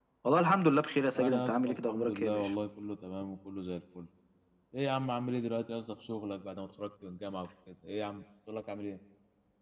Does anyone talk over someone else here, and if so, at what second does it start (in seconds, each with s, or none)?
1.1 s